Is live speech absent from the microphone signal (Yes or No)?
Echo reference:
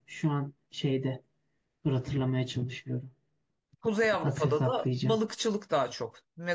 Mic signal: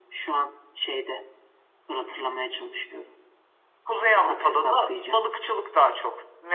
Yes